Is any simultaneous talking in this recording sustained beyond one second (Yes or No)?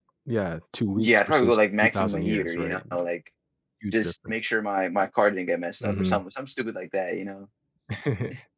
Yes